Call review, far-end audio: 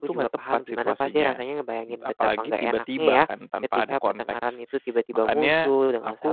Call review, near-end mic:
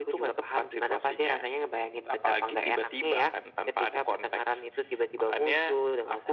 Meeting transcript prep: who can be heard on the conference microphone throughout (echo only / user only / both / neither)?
echo only